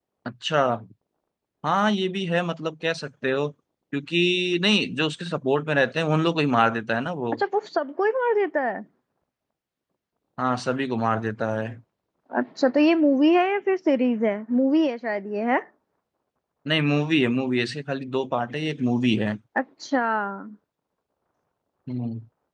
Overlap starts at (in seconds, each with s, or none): none